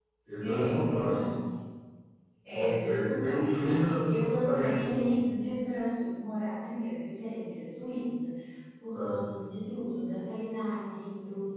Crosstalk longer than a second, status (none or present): present